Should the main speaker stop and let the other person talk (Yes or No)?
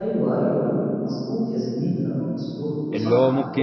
Yes